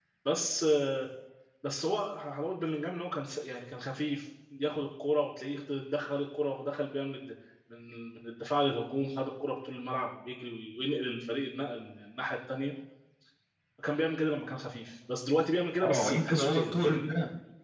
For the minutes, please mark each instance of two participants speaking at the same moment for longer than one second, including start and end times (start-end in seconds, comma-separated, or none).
15.8-17.1